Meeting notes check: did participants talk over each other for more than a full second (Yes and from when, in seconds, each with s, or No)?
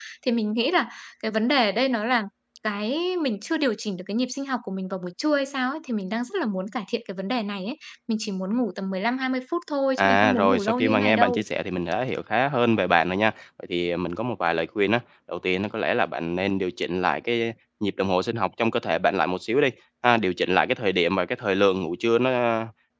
Yes, from 10.0 s